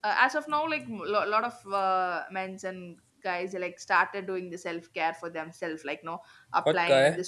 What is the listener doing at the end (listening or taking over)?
listening